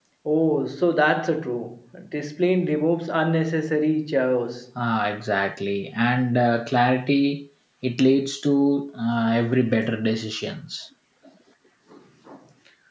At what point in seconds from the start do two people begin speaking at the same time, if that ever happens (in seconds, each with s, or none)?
none